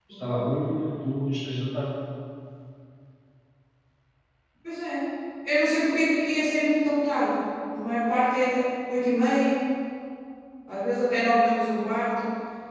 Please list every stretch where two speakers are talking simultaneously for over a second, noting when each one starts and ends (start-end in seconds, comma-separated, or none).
none